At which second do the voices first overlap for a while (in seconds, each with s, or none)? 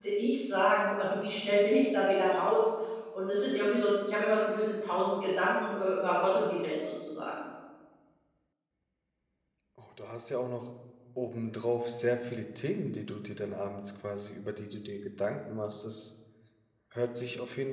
none